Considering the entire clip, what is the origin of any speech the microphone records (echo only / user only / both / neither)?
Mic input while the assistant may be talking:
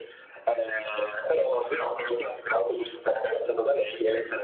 echo only